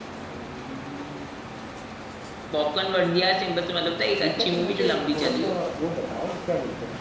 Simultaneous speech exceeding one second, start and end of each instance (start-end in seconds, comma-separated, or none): 4.2-5.5